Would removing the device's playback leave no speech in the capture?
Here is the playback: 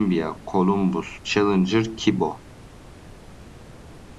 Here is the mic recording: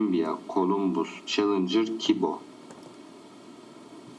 Yes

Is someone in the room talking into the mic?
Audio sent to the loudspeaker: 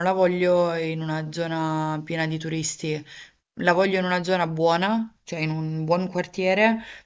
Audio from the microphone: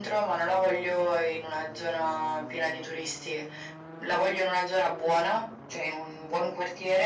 No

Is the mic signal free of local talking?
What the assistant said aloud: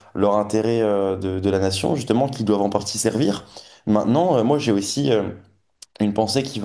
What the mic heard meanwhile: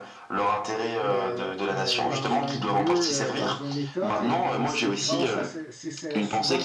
No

